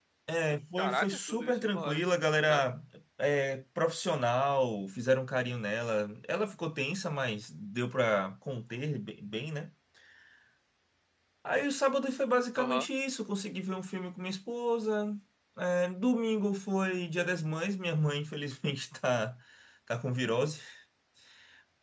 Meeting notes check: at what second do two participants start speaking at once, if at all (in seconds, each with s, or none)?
0.8 s